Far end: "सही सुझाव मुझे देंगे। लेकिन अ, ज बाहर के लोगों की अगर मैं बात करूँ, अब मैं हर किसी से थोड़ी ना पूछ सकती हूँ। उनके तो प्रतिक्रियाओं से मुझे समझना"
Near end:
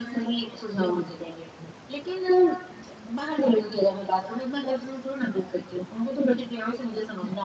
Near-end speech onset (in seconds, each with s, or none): none